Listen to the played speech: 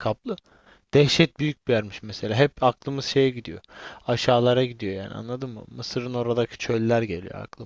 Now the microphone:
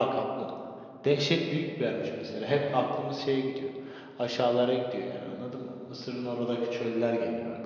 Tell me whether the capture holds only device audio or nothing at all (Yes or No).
Yes